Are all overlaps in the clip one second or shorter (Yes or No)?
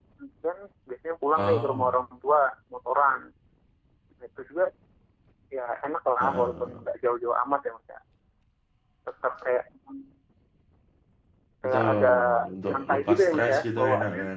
No